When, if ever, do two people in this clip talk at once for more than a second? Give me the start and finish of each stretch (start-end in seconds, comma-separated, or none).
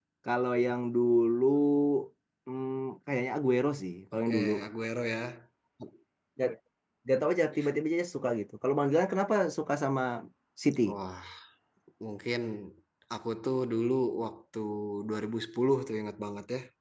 none